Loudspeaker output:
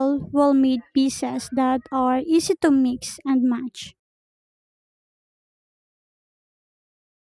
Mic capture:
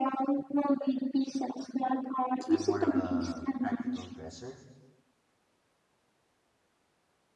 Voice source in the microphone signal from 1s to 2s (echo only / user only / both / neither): echo only